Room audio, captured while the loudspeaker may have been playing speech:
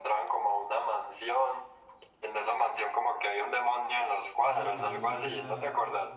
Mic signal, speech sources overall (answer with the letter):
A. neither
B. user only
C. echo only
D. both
D